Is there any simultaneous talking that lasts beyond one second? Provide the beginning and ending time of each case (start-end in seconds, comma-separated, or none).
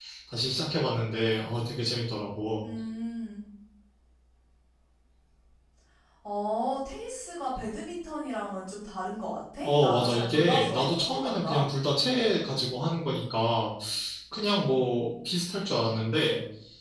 9.6-11.7